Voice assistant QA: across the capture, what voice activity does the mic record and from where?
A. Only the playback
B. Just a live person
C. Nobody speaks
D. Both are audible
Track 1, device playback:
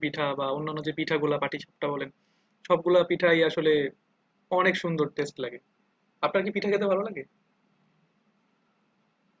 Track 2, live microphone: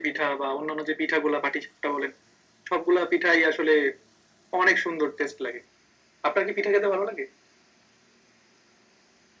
A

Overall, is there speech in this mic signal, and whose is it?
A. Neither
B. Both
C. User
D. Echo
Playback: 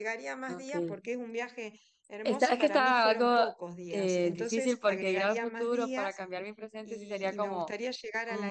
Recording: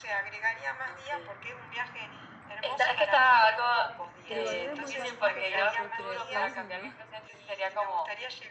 B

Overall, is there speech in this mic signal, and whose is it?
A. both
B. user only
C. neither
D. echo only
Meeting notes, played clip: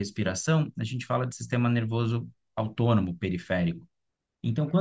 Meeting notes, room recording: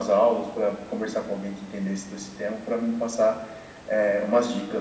B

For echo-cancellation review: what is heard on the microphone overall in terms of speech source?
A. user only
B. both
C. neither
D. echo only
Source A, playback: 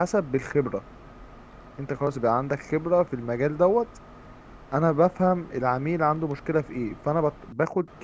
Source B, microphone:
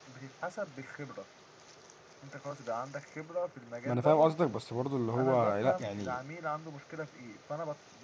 B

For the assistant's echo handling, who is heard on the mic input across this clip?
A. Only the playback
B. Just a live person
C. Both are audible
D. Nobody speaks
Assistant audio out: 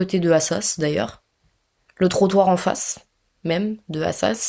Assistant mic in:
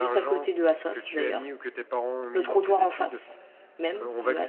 C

